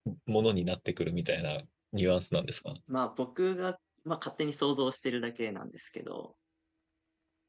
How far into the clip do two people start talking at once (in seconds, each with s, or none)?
none